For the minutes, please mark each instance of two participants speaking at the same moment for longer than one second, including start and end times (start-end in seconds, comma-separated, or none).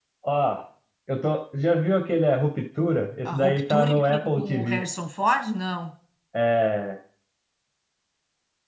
3.2-4.8